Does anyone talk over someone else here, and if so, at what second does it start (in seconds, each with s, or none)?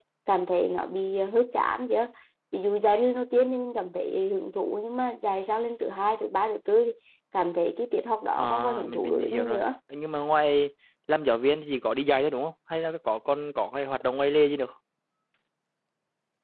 8.3 s